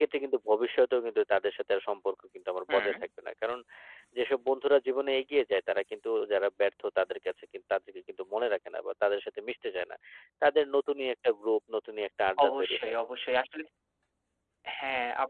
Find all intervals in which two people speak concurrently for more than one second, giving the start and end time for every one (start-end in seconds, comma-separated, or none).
none